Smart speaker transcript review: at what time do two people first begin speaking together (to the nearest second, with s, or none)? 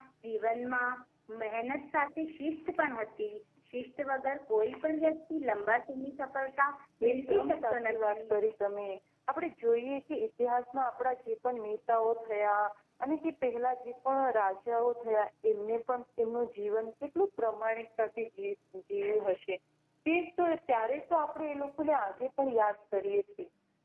7 s